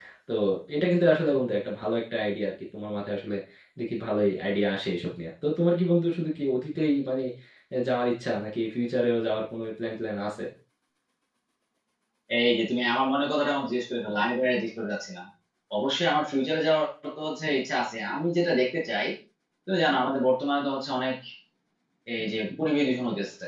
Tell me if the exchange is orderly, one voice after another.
Yes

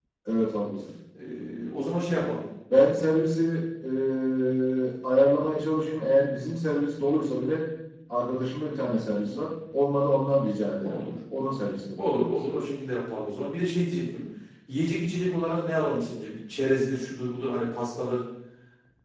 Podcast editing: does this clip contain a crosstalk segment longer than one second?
No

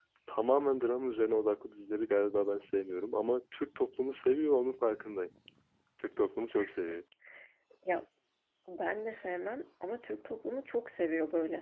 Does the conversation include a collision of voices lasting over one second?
No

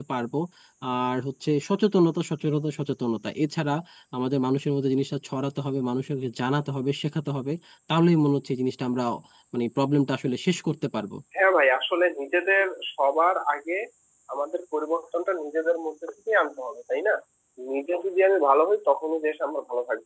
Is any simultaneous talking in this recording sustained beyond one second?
No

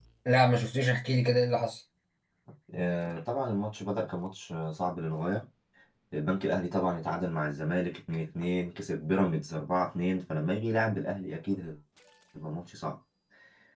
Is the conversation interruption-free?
Yes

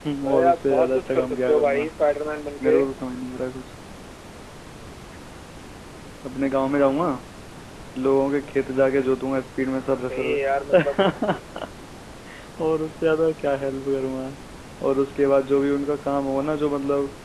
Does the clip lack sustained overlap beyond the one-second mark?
No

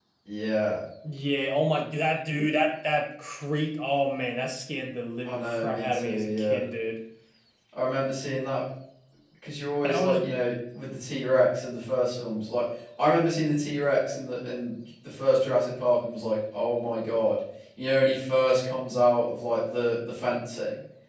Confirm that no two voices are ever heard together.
No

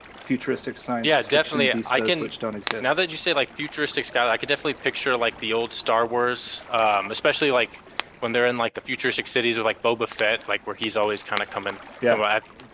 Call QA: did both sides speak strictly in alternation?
No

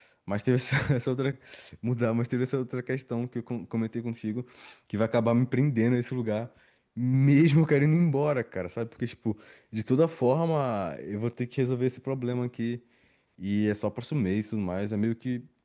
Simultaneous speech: No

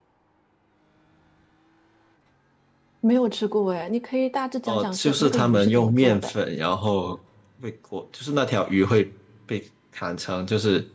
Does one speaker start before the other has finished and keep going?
Yes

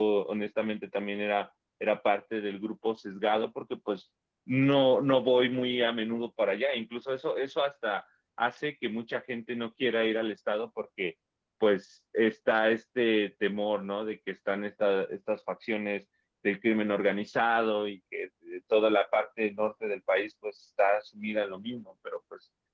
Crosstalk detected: No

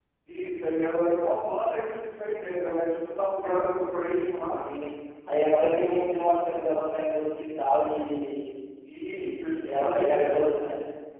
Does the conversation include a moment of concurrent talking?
Yes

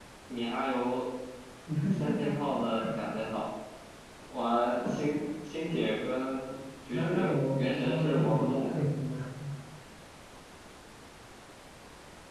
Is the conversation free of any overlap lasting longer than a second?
No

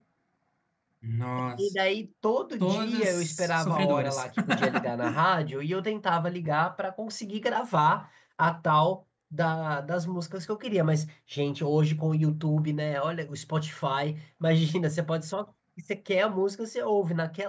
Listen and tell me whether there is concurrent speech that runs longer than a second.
Yes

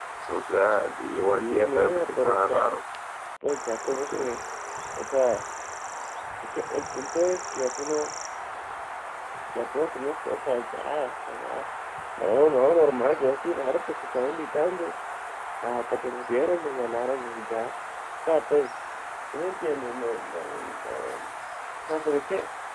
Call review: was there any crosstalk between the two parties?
Yes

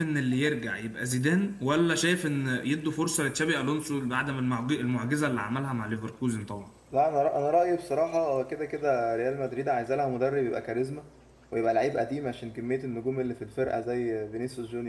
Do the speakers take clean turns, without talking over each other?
Yes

